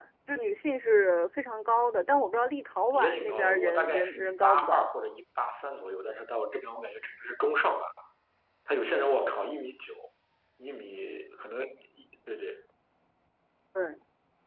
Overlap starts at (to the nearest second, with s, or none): 3 s